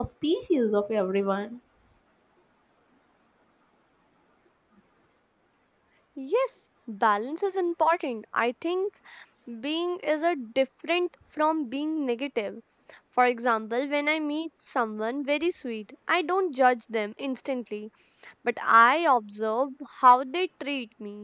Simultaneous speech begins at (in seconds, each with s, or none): none